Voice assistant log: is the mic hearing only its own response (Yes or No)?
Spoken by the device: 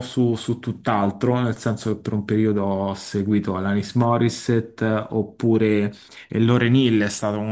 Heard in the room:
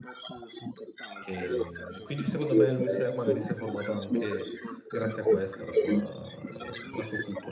No